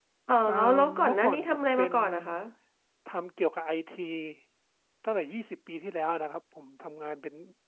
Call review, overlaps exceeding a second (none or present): present